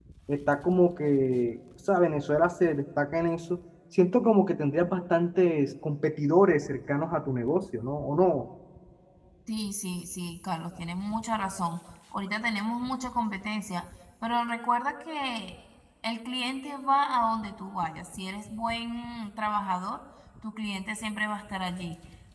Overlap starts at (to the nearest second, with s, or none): none